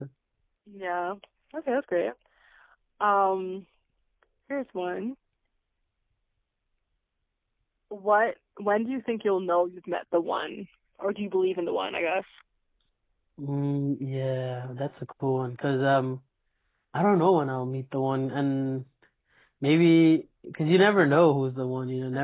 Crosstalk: none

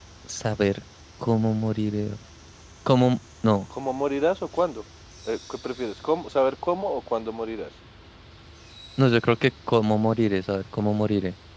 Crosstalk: none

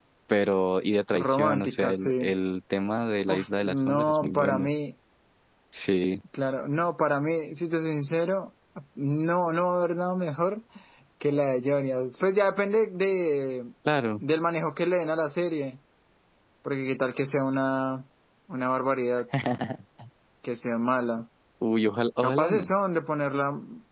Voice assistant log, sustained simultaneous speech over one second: present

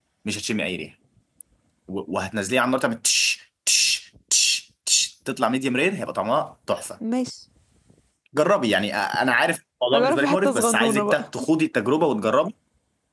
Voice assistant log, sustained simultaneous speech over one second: present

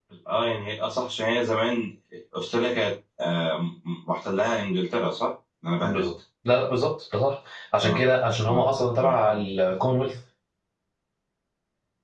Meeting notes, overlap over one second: none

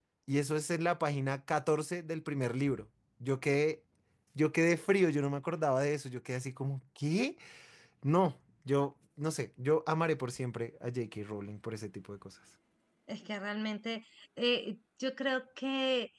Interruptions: none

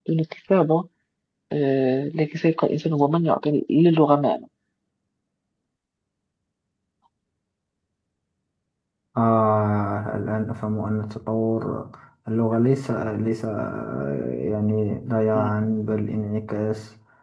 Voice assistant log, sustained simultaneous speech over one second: none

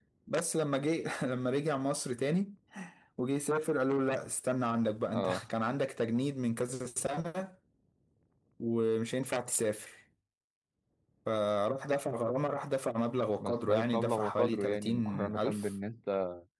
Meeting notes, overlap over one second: present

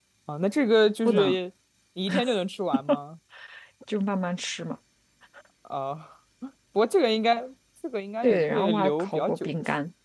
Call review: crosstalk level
present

